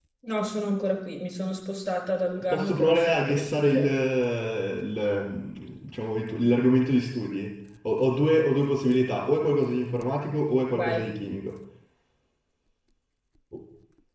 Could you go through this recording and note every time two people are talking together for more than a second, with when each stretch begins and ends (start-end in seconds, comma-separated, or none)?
2.5-3.9